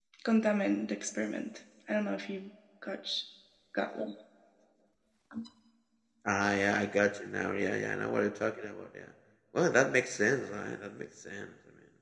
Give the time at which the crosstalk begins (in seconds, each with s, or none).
none